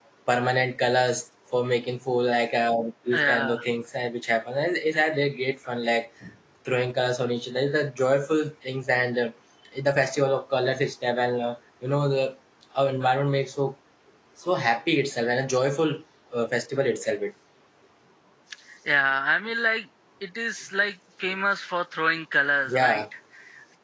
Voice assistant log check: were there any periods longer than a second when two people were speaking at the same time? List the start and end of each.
none

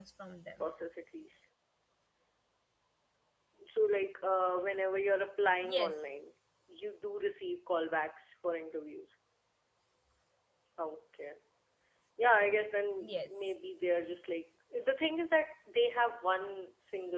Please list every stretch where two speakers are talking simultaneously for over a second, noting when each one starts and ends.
none

